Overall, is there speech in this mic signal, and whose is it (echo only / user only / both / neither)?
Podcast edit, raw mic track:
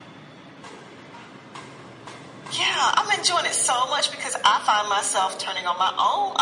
echo only